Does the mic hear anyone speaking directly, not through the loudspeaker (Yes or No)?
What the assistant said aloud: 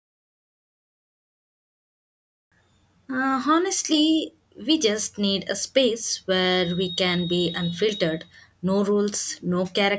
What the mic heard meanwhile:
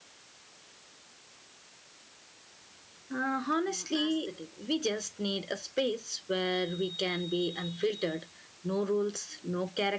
Yes